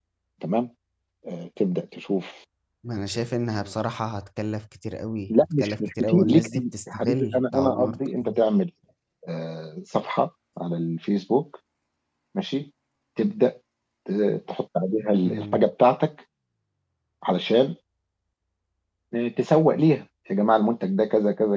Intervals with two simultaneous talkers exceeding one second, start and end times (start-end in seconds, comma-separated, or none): 5.3-8.4